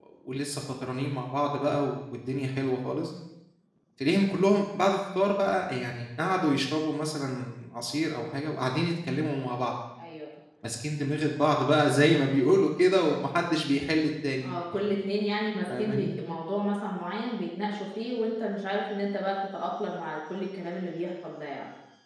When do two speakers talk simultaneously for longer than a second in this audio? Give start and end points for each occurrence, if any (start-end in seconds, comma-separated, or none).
none